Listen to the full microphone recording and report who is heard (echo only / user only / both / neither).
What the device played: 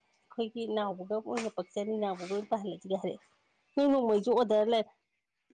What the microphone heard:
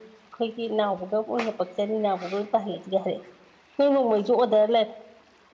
echo only